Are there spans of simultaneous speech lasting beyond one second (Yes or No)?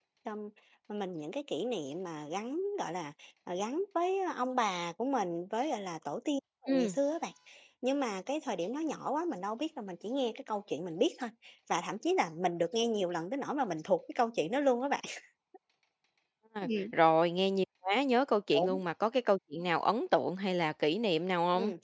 No